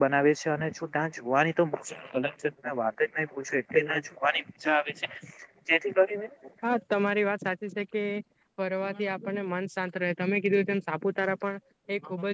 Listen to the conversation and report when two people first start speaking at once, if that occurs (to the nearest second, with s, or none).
none